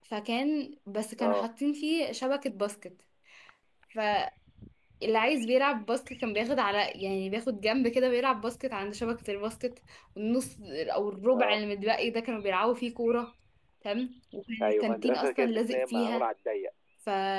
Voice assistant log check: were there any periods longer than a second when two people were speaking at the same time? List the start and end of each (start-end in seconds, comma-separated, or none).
14.6-16.2